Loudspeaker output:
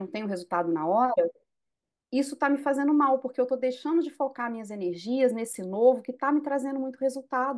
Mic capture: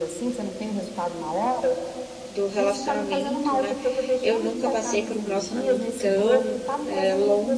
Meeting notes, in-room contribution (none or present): present